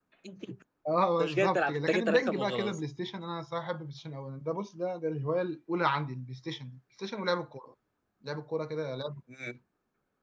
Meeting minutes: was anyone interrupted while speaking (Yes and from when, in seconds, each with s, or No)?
Yes, from 1.2 s